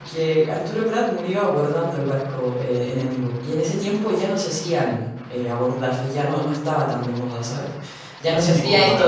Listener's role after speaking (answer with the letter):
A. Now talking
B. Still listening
A